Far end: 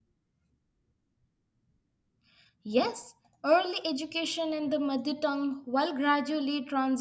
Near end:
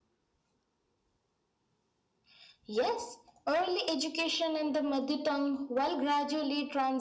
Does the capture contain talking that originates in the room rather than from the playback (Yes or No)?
No